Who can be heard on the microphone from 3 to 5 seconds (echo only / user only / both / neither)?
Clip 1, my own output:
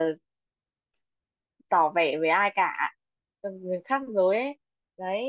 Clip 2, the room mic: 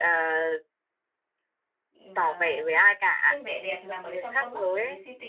both